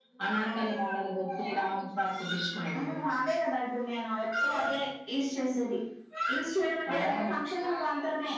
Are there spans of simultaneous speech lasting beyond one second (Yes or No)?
No